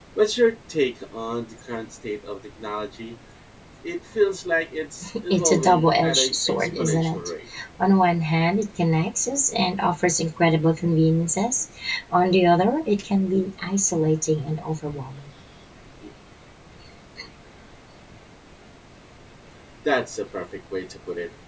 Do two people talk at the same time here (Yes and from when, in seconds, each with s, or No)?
Yes, from 5.3 s